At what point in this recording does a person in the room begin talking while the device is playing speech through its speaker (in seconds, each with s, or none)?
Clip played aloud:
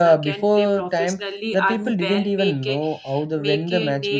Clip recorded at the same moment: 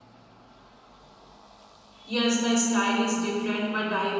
2.0 s